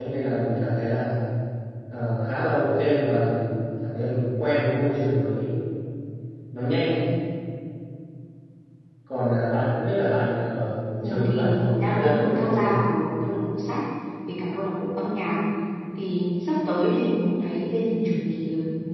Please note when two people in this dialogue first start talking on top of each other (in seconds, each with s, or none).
11.0 s